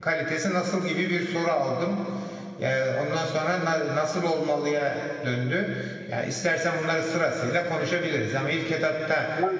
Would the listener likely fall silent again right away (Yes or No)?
No